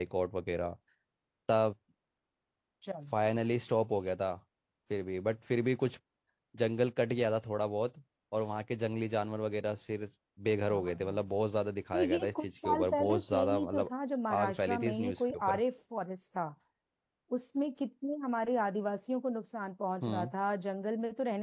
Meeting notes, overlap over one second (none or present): present